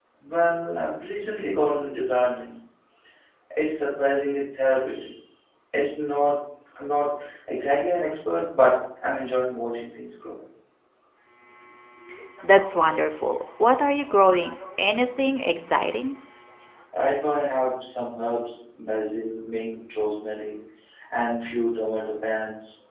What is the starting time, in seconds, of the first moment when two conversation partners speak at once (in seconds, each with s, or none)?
none